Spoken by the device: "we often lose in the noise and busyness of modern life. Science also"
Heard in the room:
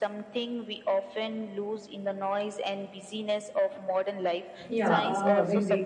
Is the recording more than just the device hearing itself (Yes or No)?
Yes